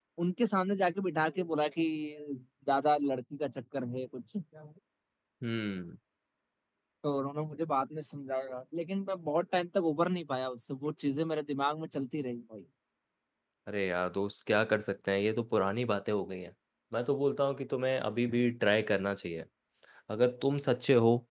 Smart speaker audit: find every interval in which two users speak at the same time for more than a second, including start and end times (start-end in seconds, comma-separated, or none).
none